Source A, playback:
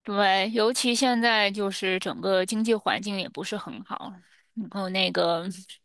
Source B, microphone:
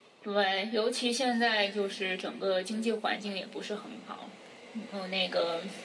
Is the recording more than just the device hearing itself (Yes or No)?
No